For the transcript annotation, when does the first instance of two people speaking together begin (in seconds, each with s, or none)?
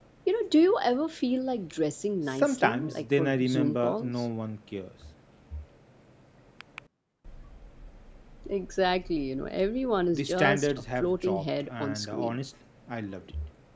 2.4 s